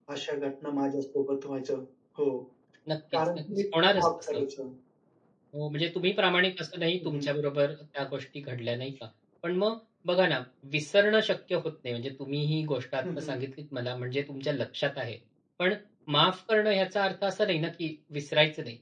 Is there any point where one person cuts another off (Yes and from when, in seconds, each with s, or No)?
Yes, from 3.1 s